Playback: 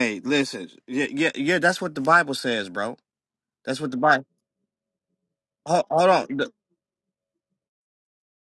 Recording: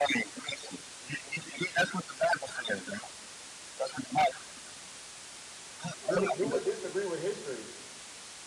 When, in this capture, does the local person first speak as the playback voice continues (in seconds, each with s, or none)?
6.1 s